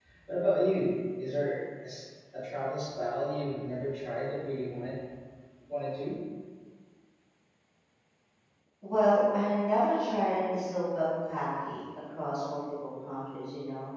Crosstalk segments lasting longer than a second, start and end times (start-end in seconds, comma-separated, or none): none